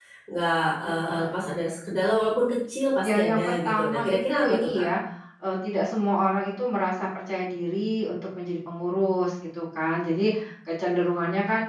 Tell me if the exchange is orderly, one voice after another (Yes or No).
No